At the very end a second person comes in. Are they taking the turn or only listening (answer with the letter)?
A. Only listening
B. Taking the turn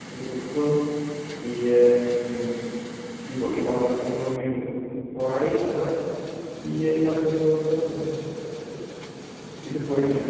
A